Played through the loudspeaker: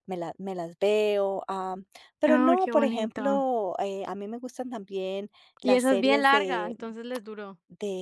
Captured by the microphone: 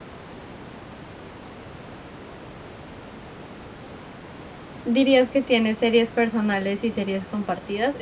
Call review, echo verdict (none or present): none